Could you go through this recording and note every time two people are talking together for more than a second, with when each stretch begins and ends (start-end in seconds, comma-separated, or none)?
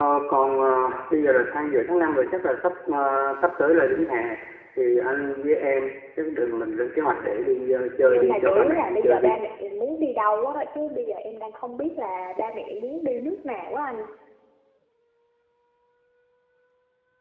8.0-9.3